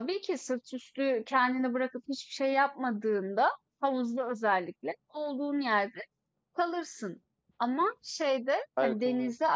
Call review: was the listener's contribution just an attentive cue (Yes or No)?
Yes